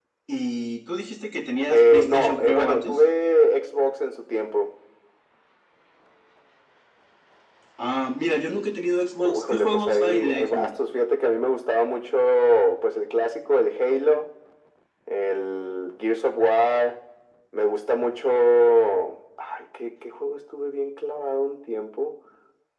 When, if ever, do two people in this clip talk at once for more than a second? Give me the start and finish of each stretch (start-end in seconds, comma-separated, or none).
1.7-3.0, 9.4-10.7